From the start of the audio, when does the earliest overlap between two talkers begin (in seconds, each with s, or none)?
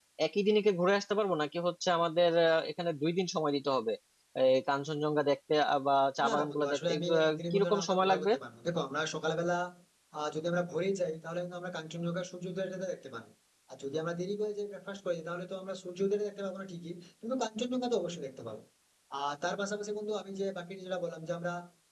6.2 s